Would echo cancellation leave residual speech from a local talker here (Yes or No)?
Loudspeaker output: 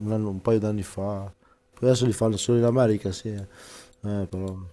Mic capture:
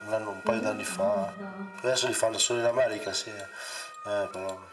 Yes